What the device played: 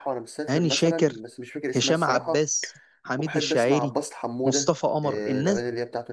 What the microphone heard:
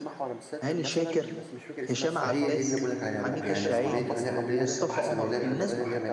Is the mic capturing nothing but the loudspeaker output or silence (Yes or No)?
No